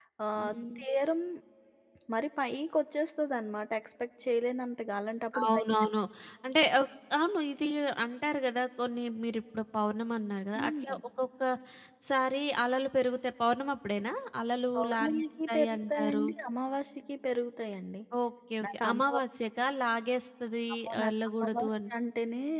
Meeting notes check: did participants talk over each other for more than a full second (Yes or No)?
Yes